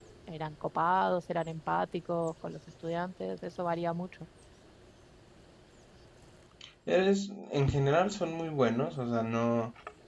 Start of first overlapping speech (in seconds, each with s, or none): none